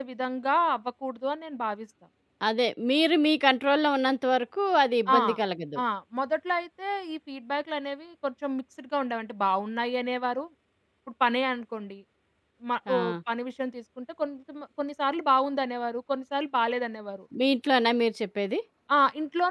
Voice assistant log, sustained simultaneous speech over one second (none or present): none